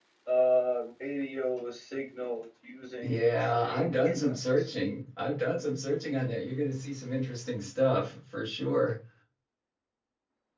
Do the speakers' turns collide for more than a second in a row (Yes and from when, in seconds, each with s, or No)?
Yes, from 3.0 s